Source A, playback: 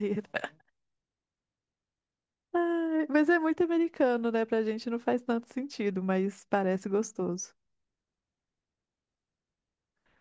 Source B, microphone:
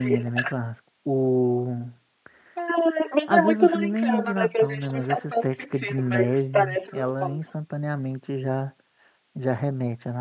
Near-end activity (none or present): present